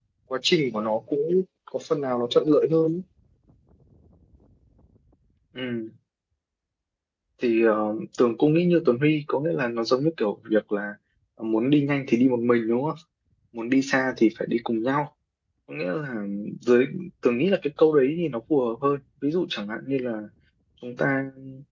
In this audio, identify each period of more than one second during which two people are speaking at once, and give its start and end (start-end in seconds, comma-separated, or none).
none